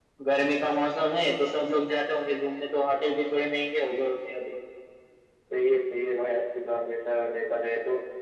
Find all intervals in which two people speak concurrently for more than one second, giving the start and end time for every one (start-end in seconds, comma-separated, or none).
none